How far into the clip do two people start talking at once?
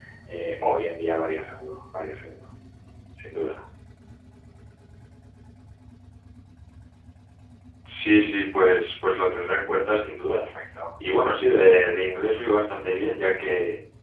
none

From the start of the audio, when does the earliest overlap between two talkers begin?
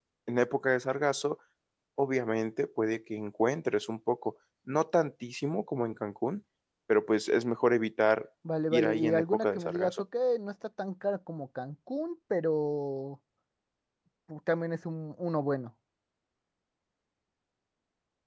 9 s

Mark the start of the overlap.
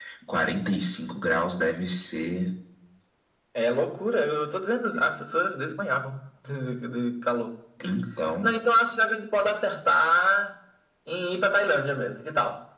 none

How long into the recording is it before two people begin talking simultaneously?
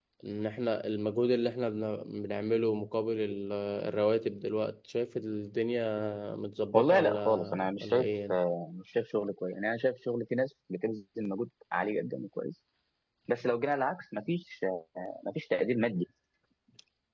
7 s

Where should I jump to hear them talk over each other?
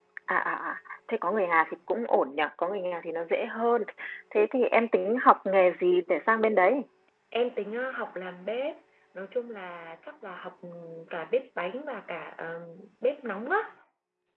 none

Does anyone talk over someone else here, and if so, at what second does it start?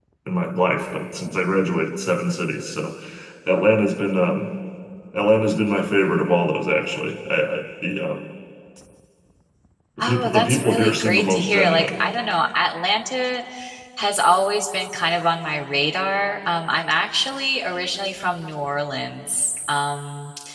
10 s

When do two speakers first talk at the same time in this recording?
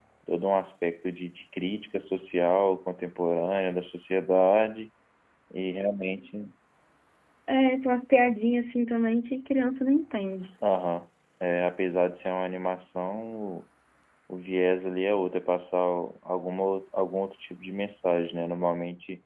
none

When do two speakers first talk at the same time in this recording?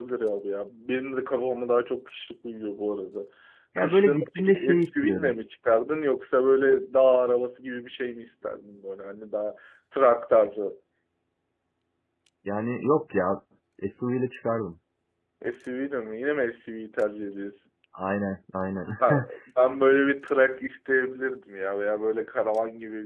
4 s

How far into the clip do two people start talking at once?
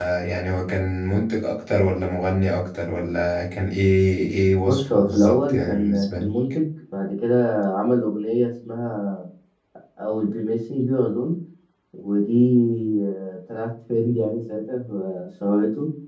5 s

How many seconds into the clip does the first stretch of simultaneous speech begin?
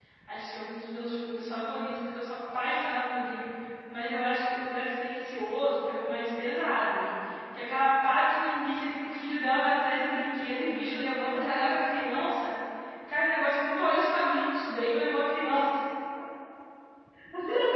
none

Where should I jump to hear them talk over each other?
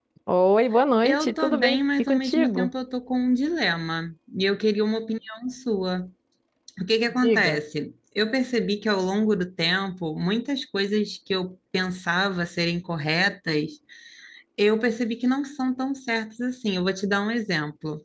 1 s

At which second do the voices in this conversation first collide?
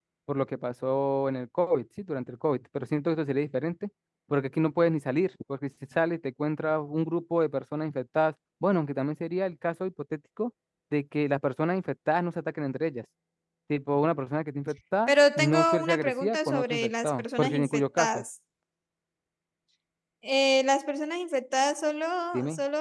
15 s

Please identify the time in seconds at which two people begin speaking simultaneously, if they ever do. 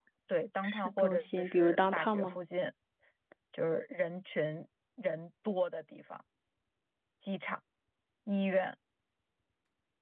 1 s

